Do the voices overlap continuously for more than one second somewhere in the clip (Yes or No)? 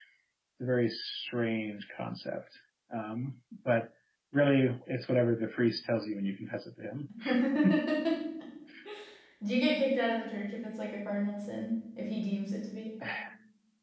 No